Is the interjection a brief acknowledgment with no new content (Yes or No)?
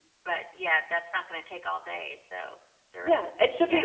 No